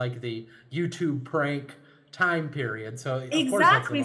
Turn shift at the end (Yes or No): Yes